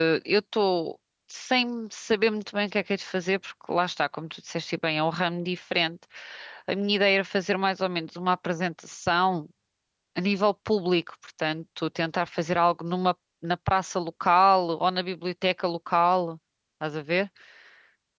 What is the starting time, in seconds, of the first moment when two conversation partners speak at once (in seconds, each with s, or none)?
none